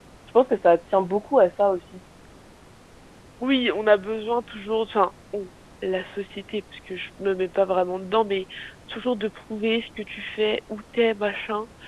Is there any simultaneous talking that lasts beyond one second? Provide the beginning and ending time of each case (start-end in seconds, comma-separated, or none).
none